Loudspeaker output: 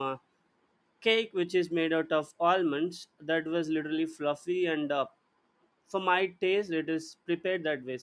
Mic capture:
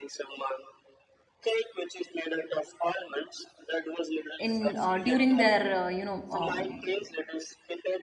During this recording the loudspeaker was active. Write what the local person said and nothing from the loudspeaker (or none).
in uh, during their uh, you know um,